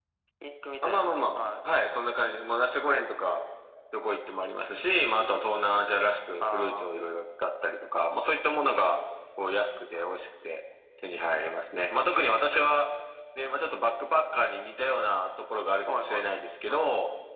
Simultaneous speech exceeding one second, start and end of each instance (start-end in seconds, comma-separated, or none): none